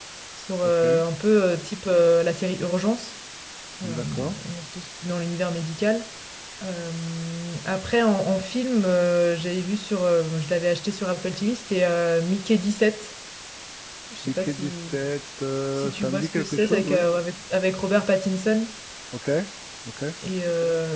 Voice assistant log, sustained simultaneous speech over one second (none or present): present